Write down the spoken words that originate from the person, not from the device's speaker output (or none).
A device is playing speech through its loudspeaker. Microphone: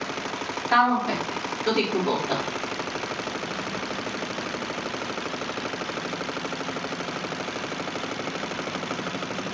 কারণটা কি? যদি একটু বলতেন।